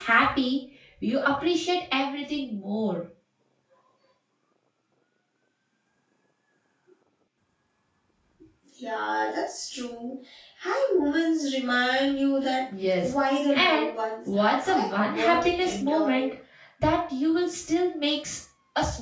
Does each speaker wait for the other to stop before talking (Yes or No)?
No